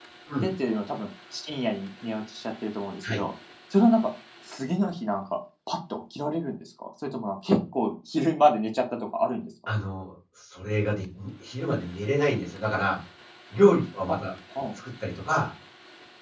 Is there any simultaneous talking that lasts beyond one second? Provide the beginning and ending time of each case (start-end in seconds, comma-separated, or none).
none